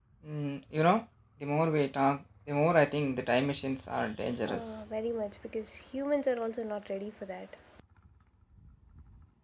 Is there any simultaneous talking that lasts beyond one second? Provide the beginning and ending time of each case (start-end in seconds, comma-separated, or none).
none